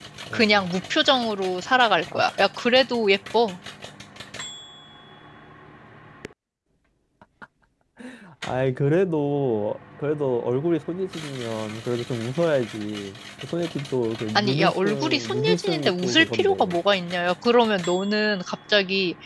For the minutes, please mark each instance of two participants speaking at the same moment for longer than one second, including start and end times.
14.3-16.8

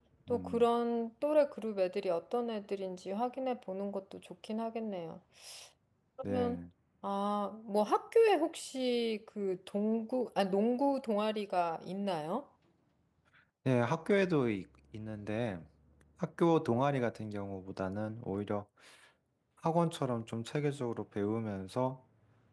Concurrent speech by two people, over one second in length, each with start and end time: none

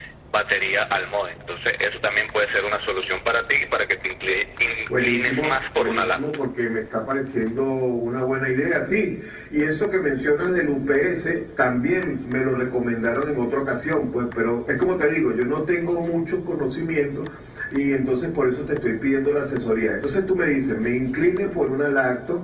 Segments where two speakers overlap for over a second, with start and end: 4.8-6.2

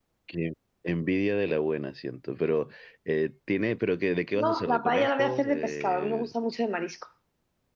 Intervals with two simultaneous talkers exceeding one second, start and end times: 4.3-6.3

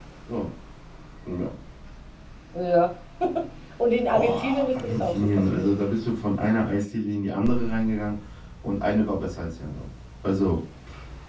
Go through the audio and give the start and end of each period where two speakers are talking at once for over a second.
4.1-5.7

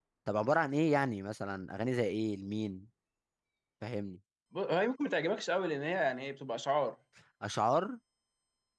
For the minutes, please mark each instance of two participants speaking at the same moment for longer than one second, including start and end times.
none

